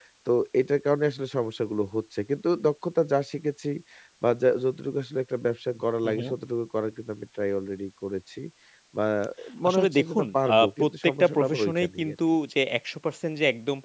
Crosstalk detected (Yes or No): Yes